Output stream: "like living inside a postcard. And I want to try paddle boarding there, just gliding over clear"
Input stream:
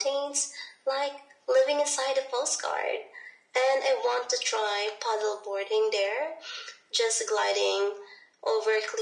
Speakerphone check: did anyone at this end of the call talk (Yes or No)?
No